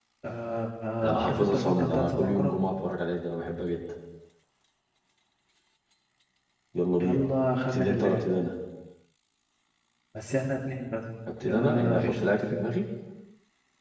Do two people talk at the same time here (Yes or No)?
Yes